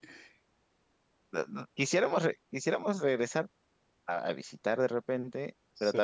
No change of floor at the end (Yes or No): Yes